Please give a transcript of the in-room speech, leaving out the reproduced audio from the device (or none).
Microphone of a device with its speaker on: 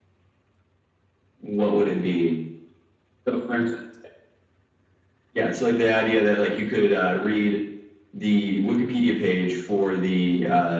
none